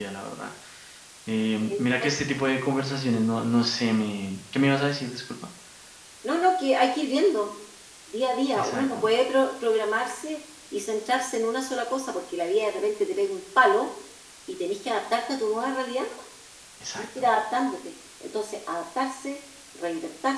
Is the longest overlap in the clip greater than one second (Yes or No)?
No